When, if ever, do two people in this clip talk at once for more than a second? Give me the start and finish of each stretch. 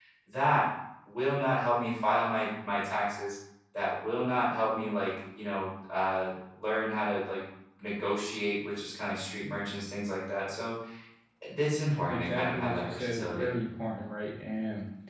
12.1-13.5

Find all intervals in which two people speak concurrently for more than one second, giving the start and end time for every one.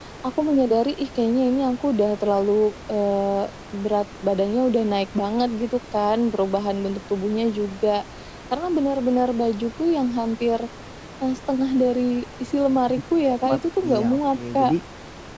12.9-14.7

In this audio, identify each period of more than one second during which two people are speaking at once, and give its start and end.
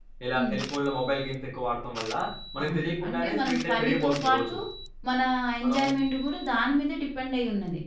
2.6-4.6

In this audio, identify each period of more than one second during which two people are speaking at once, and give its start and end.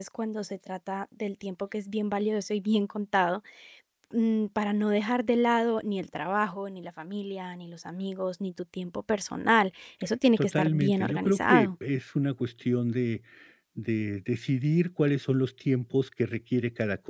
10.4-11.7

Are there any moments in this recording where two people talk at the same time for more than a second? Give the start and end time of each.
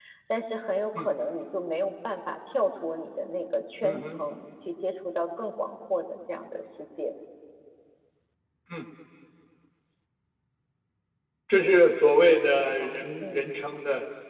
12.2-13.5

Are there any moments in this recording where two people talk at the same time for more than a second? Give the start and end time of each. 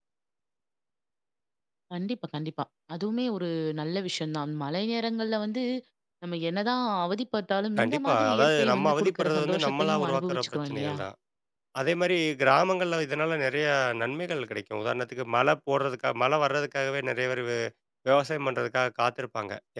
7.8-11.0

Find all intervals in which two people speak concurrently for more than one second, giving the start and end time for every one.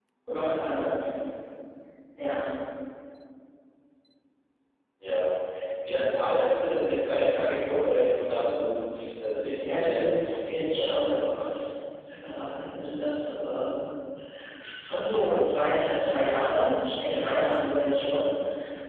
9.7-11.4

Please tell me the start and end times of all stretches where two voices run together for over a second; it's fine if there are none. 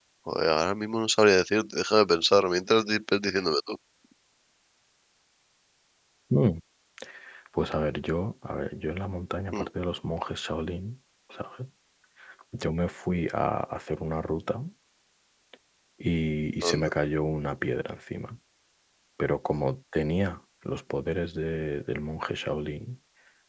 none

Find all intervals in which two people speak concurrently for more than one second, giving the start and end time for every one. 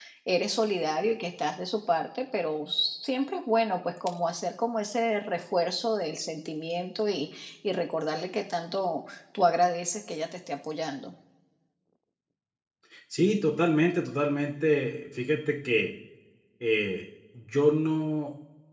none

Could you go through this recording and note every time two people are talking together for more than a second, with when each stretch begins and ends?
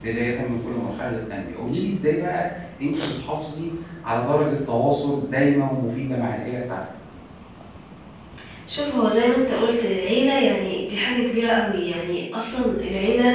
none

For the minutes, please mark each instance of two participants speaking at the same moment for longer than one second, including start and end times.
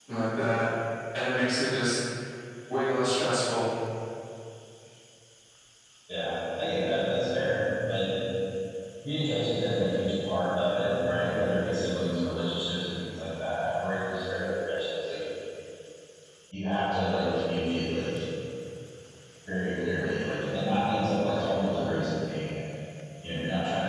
none

